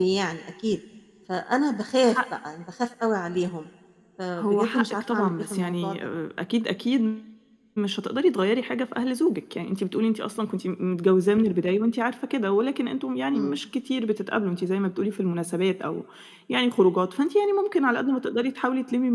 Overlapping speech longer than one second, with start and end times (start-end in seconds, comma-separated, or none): 4.4-6.0